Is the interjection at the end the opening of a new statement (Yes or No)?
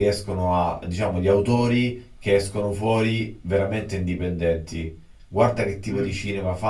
No